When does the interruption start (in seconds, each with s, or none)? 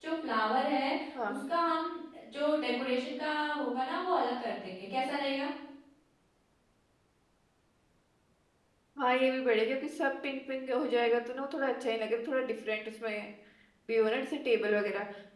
none